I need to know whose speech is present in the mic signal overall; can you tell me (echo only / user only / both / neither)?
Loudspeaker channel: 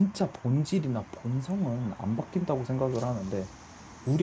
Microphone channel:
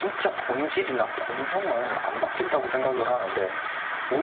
echo only